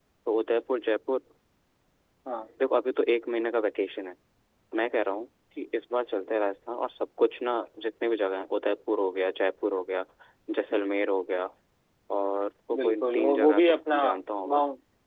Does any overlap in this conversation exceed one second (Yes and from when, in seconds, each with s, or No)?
Yes, from 12.8 s